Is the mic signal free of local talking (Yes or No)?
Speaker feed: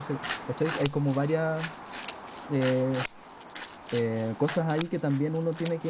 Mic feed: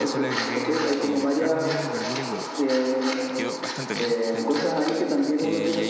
No